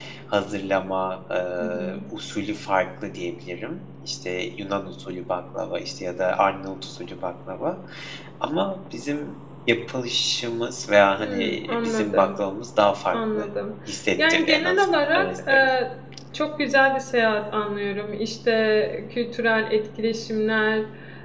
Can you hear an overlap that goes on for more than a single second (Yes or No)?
Yes